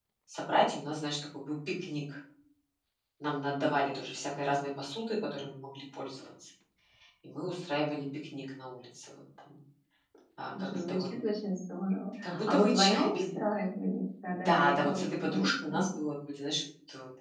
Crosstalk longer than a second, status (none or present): present